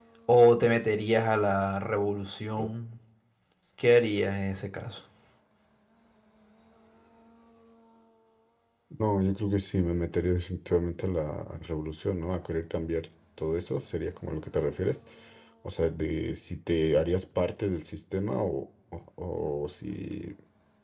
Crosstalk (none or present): none